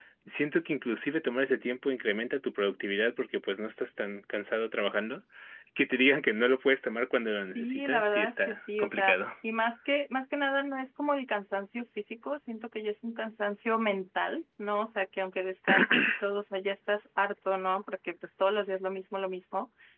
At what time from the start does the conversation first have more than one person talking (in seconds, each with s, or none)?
7.4 s